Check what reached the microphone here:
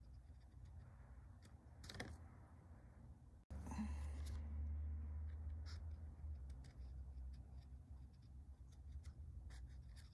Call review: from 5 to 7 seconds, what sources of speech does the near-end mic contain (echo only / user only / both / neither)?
neither